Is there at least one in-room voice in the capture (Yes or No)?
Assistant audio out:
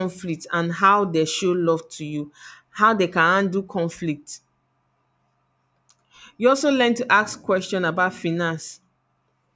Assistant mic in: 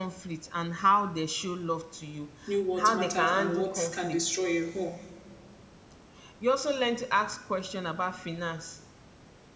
Yes